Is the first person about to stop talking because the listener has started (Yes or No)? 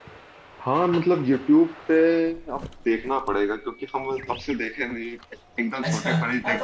Yes